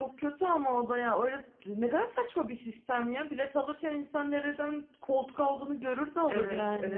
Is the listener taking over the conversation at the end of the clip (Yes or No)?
Yes